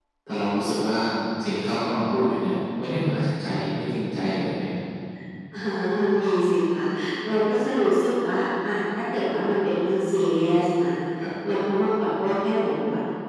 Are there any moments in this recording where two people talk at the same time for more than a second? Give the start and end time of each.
none

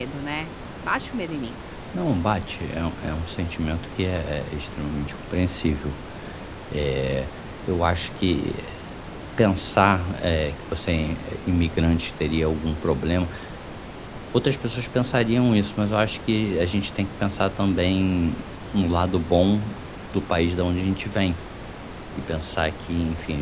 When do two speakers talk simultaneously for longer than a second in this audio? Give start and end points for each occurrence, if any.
none

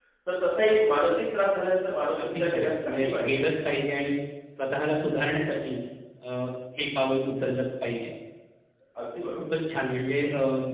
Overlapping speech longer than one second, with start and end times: 2.2-3.6

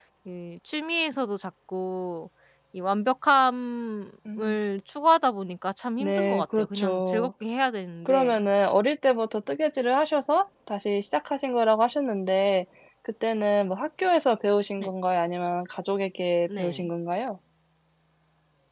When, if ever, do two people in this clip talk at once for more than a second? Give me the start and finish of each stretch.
6.0-7.3

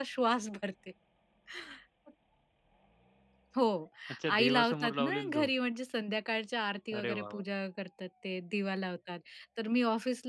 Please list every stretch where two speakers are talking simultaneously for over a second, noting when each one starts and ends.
4.3-5.5

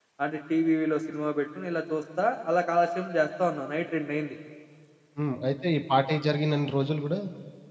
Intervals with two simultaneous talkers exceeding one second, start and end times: none

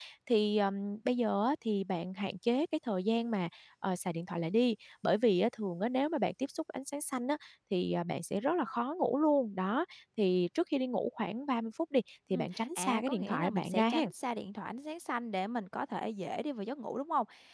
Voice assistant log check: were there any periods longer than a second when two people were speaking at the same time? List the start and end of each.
12.3-14.1

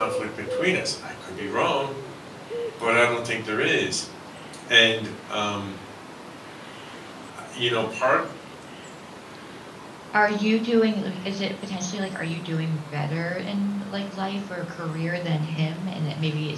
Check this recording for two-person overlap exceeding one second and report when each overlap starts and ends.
none

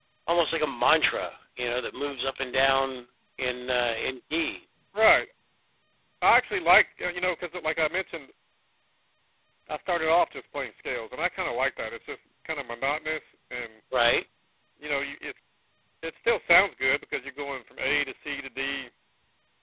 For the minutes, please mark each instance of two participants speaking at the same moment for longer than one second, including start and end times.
none

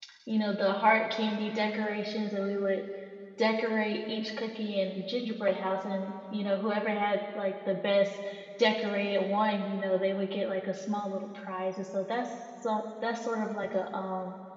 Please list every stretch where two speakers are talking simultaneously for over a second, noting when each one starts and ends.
none

